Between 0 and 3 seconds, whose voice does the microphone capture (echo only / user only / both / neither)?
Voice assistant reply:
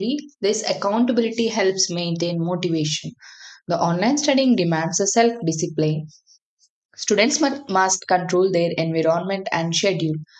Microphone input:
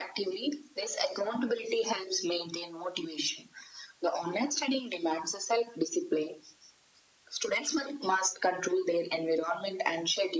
echo only